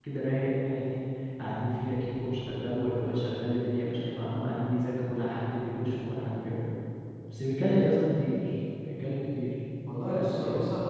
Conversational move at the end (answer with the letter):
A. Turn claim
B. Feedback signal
A